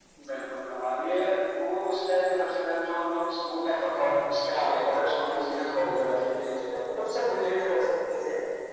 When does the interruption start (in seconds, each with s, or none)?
4.4 s